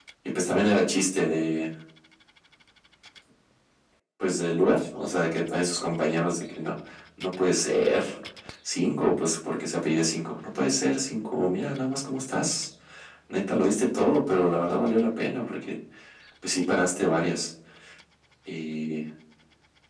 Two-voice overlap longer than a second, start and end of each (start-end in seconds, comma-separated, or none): none